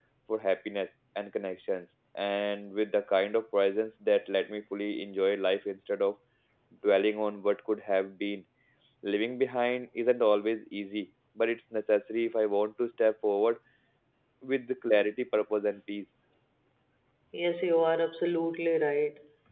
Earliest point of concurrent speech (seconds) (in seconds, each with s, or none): none